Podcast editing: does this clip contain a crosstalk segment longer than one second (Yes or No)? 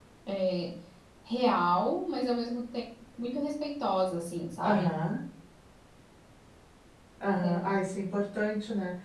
No